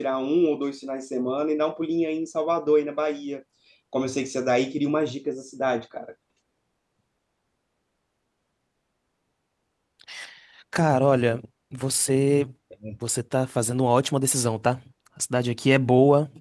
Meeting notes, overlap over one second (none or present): none